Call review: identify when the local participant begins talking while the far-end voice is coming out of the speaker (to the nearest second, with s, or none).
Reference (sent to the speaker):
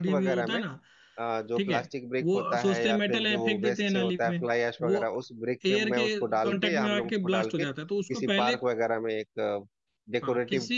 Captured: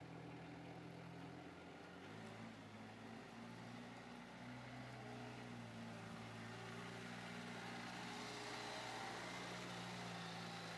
none